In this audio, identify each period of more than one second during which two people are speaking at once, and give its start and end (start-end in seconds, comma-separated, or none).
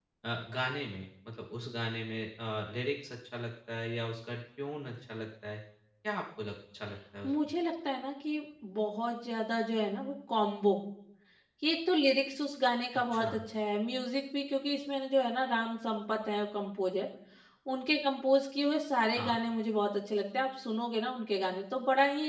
none